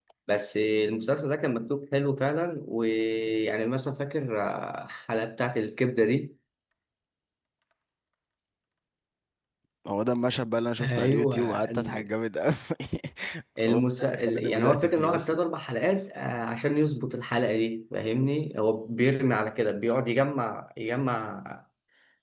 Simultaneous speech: Yes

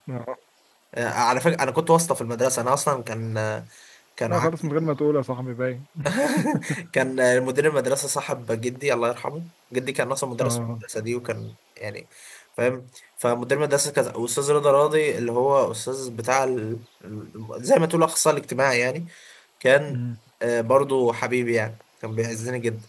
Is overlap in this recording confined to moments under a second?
Yes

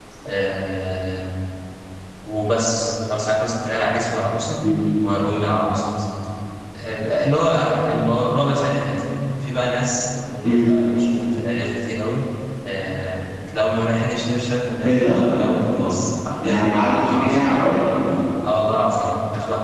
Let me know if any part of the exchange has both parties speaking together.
Yes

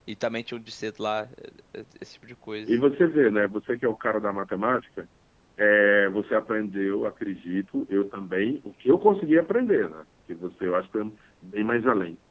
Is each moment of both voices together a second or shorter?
Yes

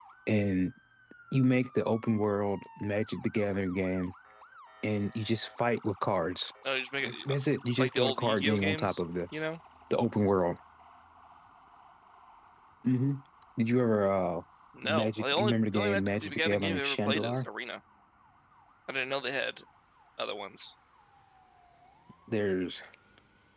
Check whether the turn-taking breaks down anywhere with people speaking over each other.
Yes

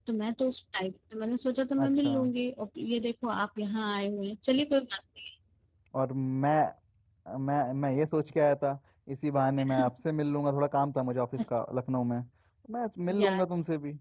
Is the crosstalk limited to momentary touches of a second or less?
Yes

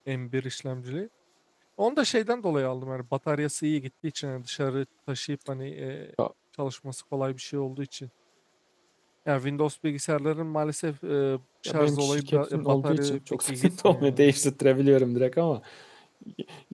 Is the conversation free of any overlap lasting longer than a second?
No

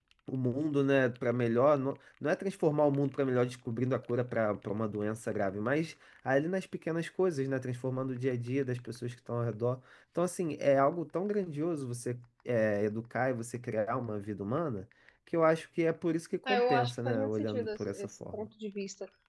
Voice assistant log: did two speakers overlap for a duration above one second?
Yes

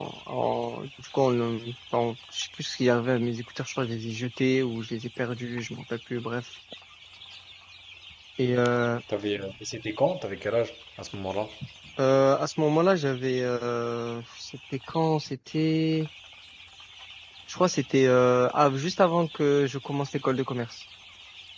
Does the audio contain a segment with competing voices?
No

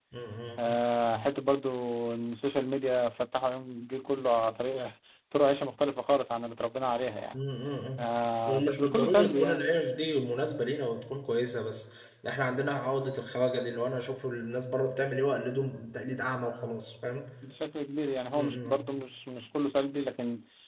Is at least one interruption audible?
Yes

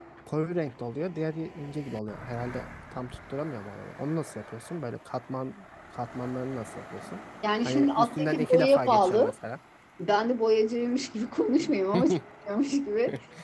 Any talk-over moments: Yes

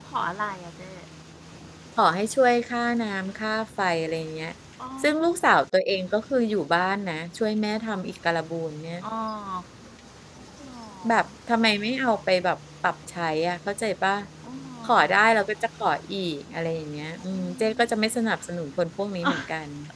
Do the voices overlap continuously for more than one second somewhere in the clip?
No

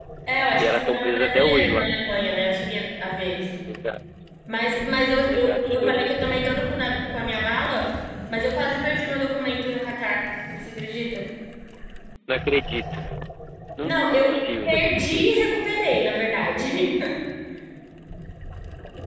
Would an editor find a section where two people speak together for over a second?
Yes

